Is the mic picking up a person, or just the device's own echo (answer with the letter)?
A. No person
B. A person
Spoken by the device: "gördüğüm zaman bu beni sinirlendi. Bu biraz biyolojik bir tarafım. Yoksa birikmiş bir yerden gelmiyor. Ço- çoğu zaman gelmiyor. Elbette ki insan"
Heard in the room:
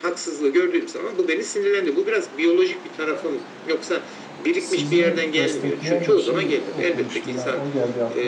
B